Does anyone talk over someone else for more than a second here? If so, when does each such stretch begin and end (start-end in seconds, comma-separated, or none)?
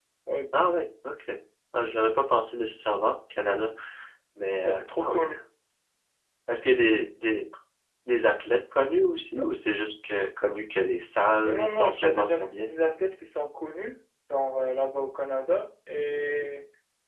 11.4-12.7